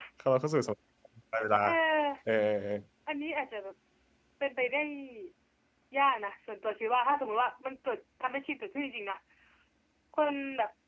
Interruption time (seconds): none

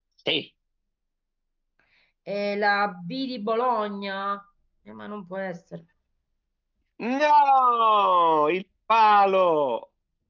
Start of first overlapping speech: none

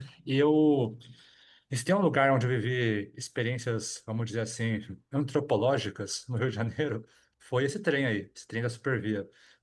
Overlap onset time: none

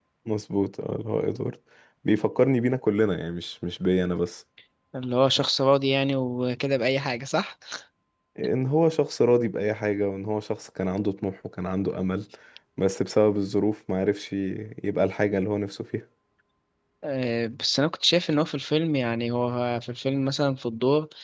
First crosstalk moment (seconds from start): none

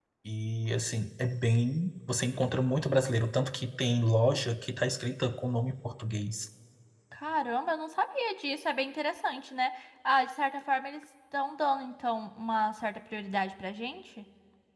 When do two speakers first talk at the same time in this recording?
none

